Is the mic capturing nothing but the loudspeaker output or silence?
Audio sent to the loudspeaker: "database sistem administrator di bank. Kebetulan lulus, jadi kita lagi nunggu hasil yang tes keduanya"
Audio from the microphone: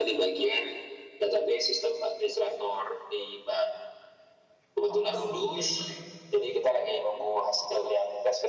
No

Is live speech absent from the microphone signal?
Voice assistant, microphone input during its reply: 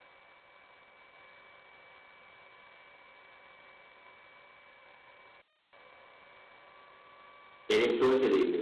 No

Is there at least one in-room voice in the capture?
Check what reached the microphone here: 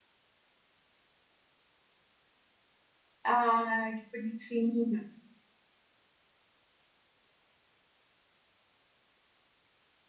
Yes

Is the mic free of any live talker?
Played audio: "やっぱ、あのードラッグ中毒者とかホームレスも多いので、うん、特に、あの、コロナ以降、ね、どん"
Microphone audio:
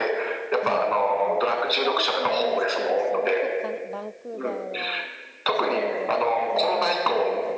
No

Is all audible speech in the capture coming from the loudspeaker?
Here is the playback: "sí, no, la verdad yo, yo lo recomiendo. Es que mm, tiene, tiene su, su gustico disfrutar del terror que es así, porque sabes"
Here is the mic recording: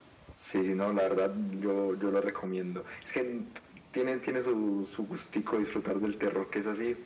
Yes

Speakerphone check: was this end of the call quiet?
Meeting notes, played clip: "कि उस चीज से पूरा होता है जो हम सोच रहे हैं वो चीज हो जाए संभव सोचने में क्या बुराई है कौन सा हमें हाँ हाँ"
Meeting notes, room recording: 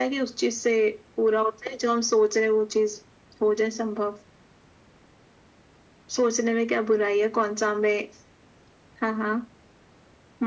Yes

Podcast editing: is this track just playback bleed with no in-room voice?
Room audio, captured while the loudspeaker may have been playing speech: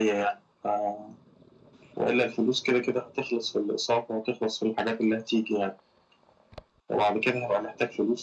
Yes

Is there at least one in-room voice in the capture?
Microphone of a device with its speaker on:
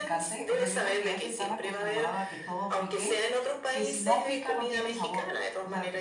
Yes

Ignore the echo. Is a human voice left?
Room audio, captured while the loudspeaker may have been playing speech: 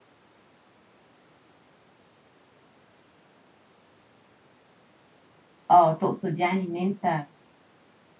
Yes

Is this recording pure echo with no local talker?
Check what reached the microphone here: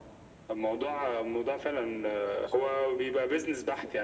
Yes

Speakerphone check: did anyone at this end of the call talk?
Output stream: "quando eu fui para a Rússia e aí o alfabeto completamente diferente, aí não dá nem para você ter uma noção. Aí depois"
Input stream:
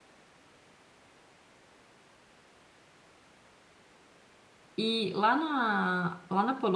Yes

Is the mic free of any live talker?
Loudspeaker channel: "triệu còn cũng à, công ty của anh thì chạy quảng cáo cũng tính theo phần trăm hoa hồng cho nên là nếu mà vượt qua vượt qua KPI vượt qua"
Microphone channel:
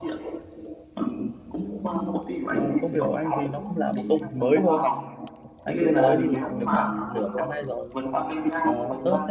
No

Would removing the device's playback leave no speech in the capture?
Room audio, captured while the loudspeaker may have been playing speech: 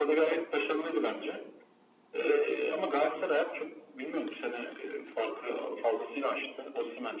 Yes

